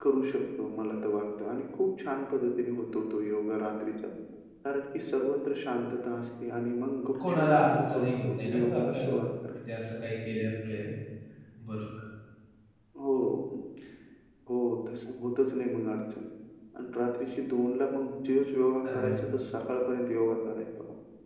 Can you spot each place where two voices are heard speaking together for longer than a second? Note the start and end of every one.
7.3-9.1

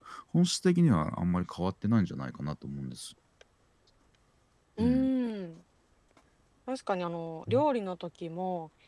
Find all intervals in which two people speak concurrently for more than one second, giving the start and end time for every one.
none

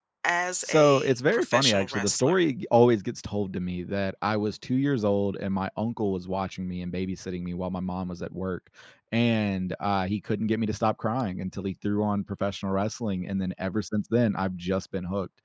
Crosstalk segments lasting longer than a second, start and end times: 0.6-2.5

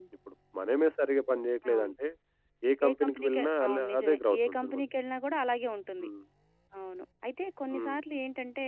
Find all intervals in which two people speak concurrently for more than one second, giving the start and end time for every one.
2.9-4.8

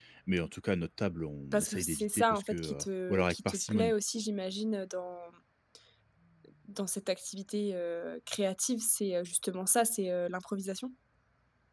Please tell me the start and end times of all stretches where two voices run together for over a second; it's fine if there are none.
1.5-3.9

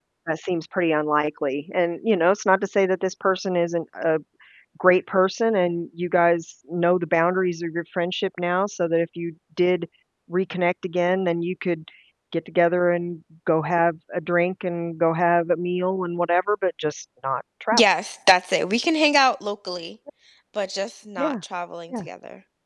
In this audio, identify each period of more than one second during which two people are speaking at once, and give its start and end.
none

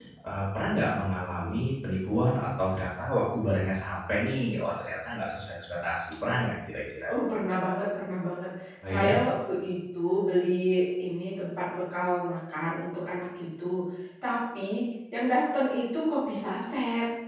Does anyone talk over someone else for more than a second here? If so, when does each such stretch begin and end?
none

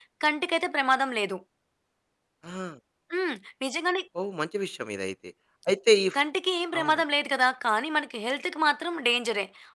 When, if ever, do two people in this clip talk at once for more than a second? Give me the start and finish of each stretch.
none

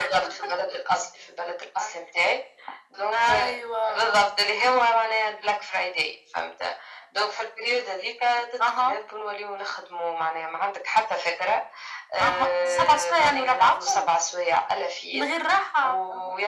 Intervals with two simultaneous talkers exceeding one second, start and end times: 12.2-14.1

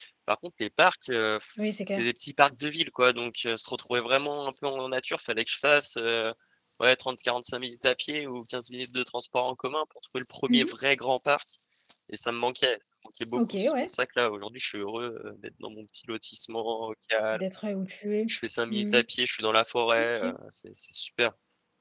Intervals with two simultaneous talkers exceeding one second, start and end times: none

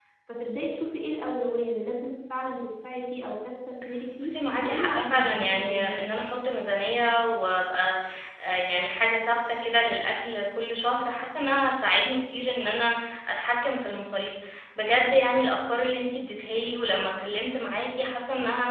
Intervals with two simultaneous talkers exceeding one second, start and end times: 4.2-6.0

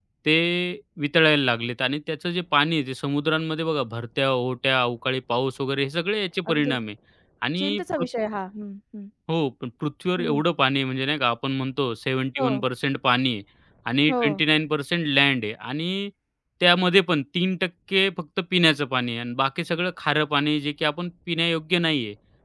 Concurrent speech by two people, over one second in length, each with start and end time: none

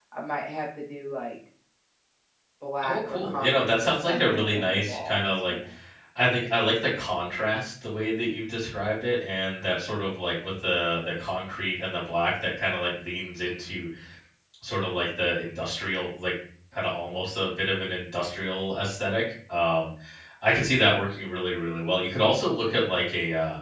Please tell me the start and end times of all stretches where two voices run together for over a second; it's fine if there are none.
2.8-5.5

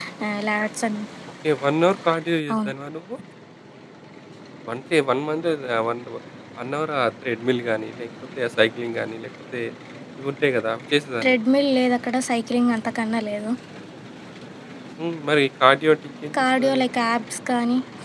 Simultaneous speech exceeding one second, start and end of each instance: none

